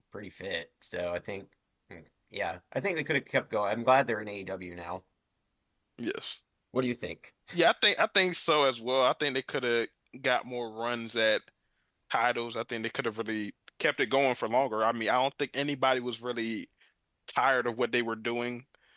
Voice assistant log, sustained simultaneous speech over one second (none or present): none